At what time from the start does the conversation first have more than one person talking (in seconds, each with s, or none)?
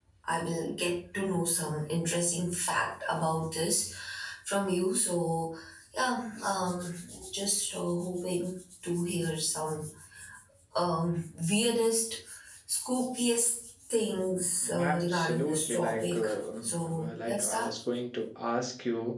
14.6 s